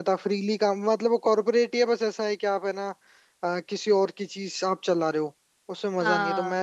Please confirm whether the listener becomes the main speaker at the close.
No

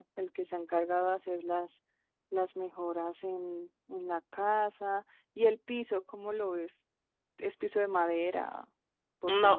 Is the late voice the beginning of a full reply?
Yes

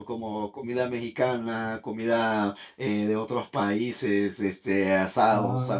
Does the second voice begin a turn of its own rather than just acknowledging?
No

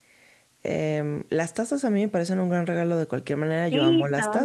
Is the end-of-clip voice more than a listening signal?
Yes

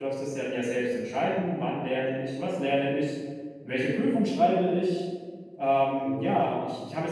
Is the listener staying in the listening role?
Yes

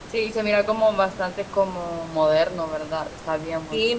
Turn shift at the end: Yes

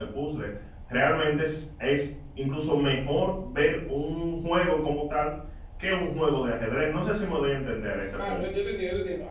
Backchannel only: No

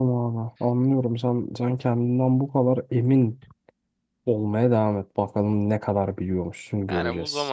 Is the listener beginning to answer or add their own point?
Yes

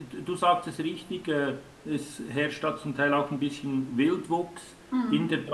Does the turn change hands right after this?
No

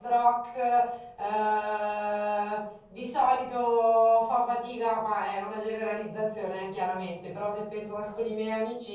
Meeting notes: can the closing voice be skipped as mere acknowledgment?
Yes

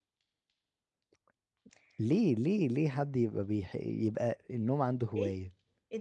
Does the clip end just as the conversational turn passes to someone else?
Yes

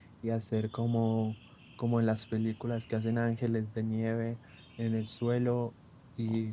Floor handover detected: No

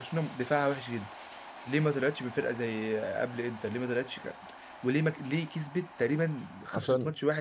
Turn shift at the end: No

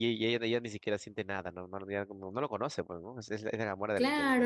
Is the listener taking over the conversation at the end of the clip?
Yes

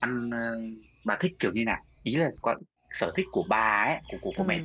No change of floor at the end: No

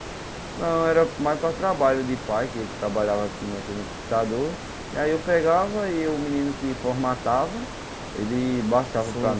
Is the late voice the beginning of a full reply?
Yes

